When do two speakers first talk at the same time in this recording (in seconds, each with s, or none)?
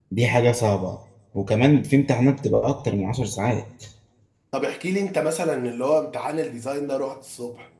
none